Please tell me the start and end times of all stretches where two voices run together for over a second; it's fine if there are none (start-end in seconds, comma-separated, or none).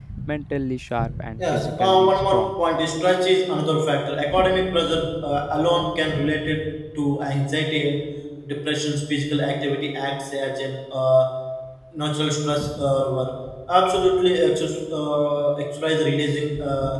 1.4-2.6